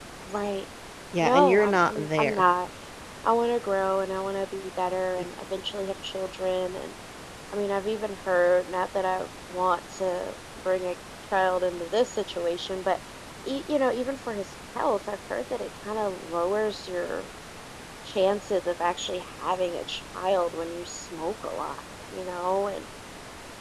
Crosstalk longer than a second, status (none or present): present